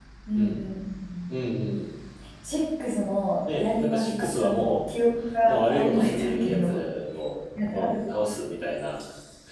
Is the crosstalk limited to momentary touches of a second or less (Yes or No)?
No